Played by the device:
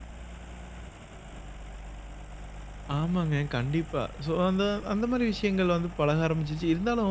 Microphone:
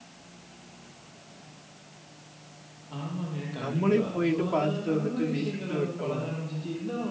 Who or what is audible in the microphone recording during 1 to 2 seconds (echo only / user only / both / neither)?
neither